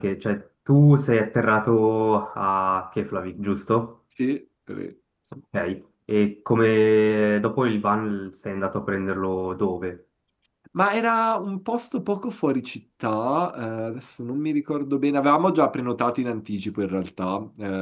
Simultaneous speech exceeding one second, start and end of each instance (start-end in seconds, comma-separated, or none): none